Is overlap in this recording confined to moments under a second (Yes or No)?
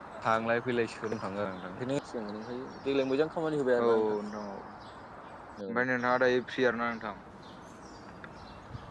Yes